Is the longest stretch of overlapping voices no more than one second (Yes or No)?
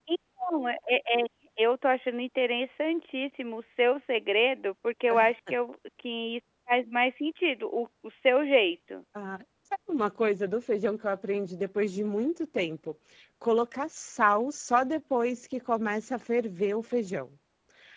Yes